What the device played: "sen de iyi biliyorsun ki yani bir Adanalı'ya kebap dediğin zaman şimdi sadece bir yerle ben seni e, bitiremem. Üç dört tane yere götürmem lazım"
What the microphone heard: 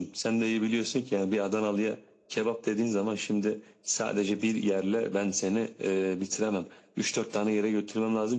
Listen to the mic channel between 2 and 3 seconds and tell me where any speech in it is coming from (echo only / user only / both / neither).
echo only